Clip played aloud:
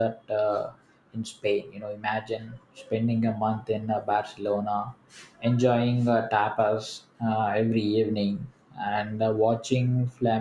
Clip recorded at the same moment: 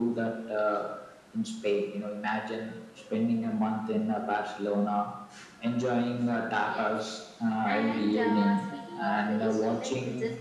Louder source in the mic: echo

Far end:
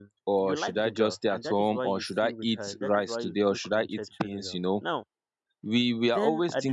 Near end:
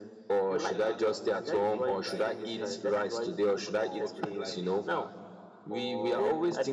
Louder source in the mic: echo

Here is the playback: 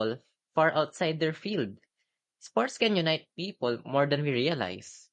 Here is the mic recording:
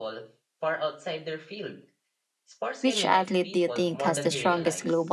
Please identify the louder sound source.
user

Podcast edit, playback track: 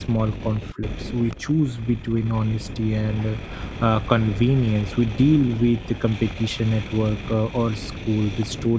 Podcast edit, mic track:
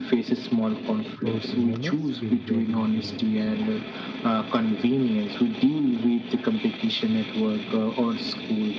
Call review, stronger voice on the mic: echo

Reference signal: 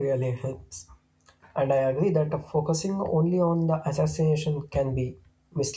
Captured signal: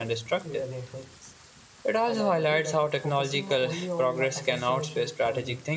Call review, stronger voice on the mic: user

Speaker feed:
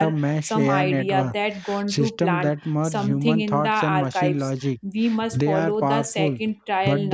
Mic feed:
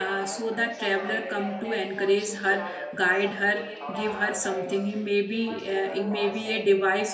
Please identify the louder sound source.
user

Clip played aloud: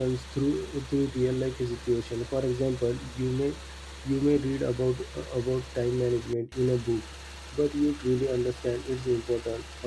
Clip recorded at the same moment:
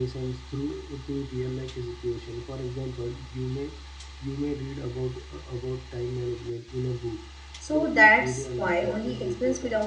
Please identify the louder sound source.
user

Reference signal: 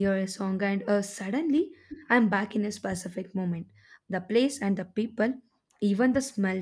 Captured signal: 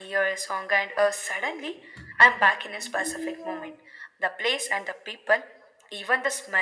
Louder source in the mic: echo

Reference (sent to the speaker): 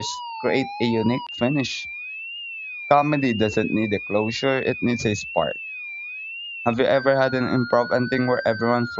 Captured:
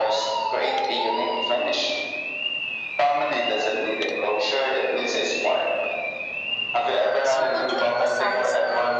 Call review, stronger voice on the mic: echo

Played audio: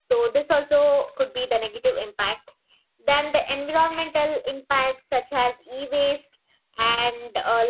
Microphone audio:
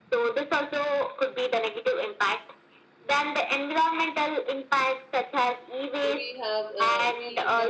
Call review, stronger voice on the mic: echo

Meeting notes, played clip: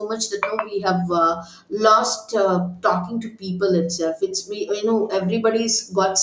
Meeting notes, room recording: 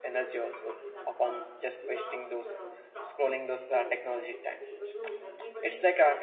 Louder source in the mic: user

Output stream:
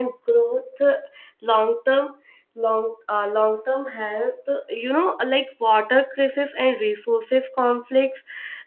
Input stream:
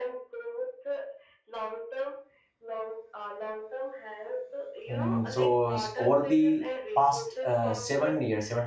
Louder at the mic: user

